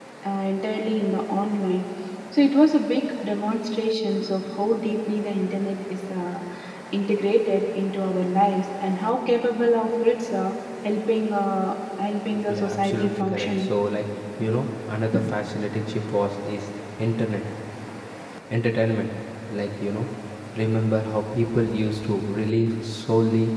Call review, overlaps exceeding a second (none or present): present